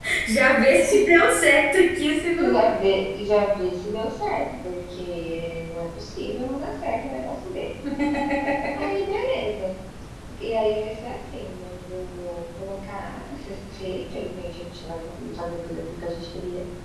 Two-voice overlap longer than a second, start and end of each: none

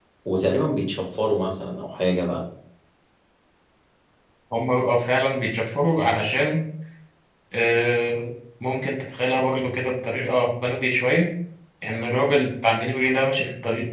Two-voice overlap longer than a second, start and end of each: none

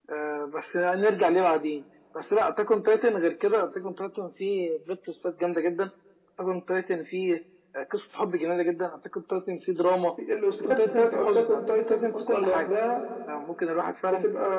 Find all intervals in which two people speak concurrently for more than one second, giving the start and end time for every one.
10.6-12.7

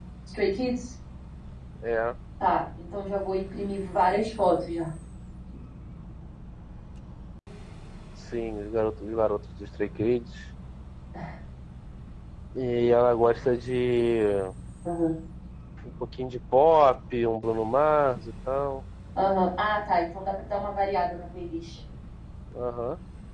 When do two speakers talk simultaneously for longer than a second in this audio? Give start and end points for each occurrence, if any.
none

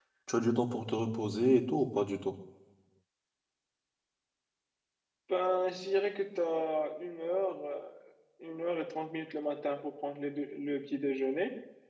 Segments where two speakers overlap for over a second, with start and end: none

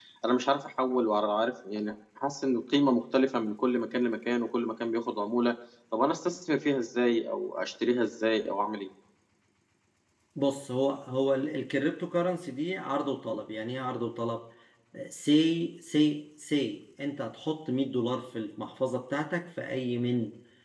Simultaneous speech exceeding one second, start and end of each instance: none

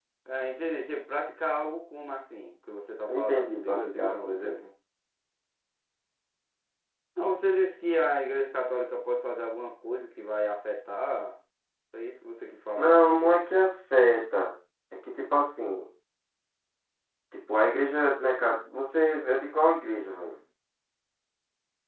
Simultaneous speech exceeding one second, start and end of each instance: 3.1-4.6

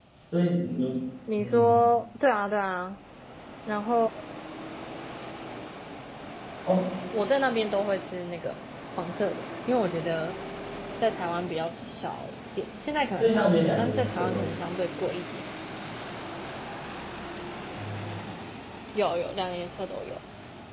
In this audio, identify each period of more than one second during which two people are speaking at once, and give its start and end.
13.2-14.5

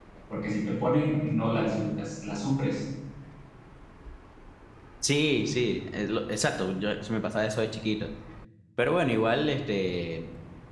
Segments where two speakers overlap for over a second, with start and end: none

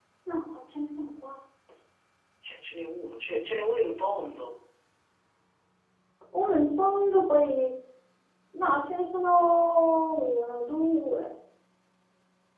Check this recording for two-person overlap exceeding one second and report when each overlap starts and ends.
none

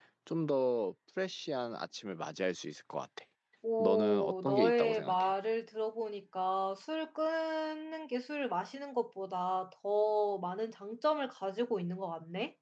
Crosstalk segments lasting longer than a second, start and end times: 3.8-5.3

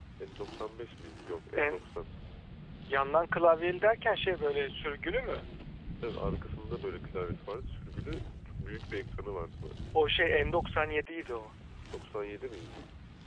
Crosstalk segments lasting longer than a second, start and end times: none

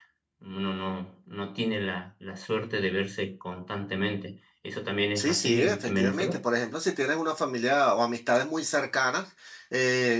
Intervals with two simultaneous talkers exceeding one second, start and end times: 5.2-6.4

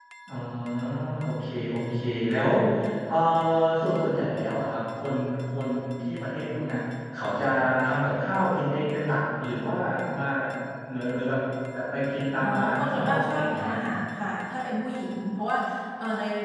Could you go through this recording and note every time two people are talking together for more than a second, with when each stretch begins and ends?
12.4-13.7

